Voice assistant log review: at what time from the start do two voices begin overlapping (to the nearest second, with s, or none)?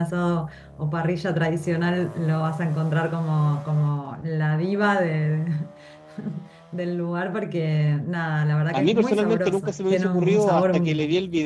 9 s